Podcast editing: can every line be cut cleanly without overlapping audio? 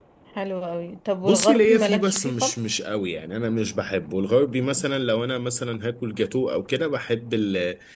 No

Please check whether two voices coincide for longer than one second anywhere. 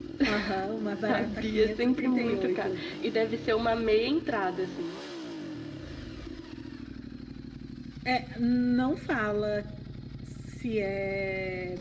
Yes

